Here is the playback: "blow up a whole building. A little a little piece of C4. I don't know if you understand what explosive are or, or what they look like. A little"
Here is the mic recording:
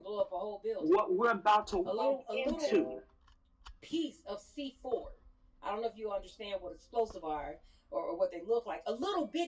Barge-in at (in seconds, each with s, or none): 0.8 s